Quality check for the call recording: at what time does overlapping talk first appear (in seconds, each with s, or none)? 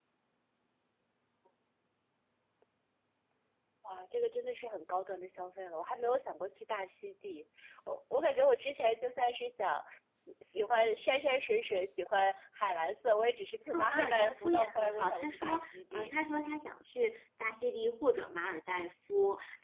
13.7 s